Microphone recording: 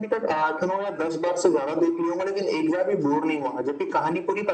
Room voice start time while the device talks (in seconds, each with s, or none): none